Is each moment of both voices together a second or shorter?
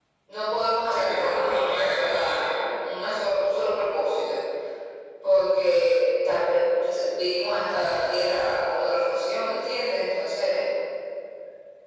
No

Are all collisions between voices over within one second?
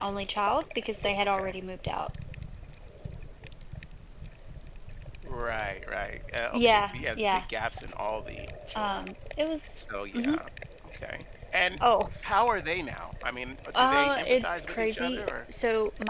No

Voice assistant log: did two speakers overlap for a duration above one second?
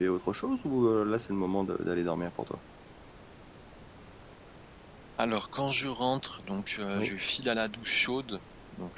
No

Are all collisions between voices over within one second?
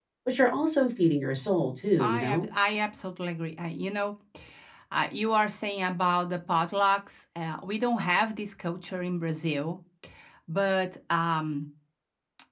Yes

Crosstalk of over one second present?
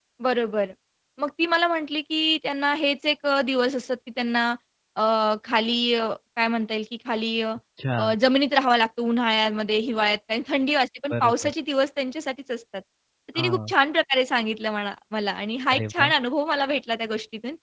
No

